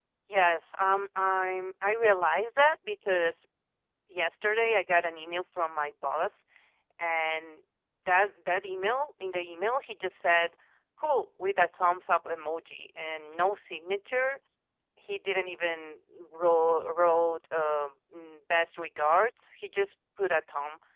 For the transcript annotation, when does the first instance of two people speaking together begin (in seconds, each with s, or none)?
none